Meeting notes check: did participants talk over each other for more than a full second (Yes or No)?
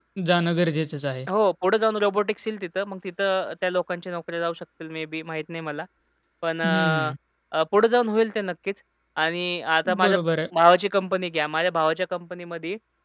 No